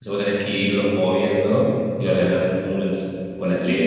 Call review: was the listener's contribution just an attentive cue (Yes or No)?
No